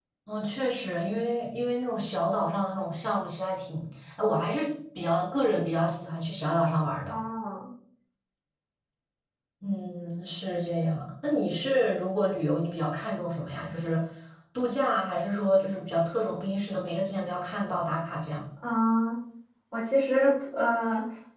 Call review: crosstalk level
none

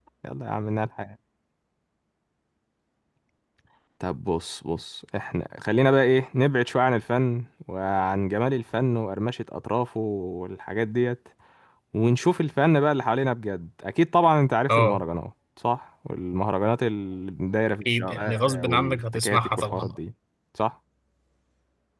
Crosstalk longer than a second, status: present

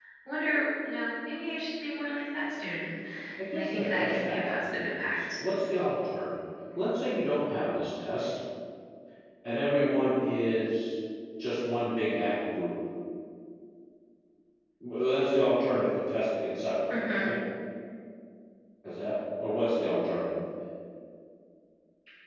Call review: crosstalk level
present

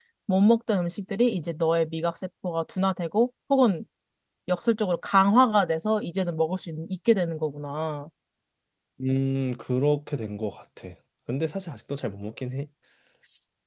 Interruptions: none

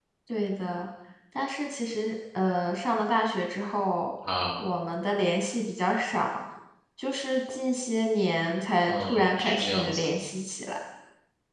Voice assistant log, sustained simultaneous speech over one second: present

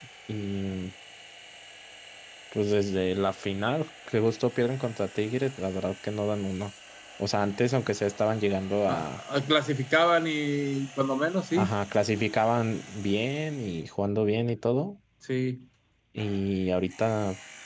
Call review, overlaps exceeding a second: none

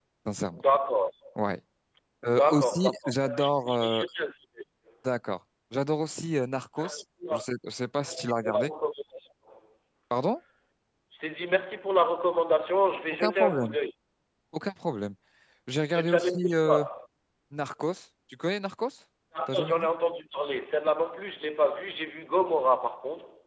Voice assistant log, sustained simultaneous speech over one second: present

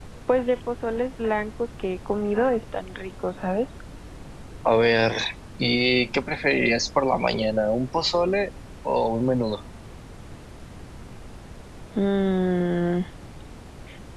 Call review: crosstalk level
none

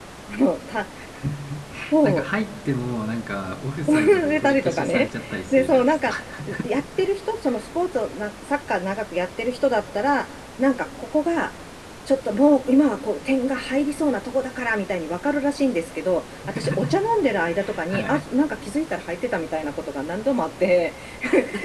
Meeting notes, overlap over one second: present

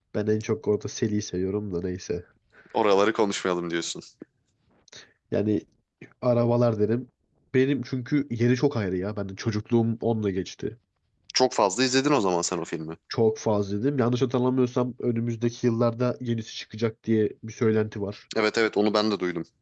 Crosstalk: none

